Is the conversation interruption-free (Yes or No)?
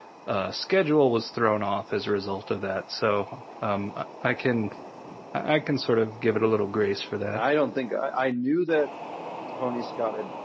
Yes